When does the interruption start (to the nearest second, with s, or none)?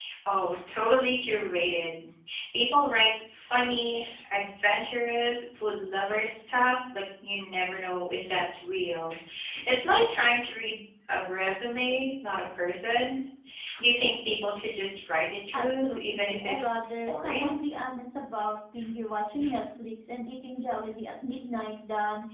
16 s